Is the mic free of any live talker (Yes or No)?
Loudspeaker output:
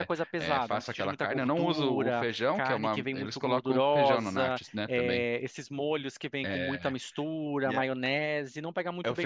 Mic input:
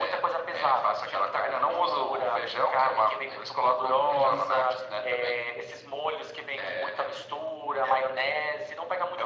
No